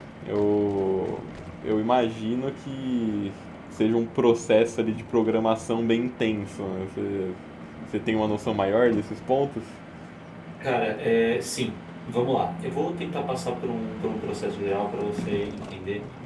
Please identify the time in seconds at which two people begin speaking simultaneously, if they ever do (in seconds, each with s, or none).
none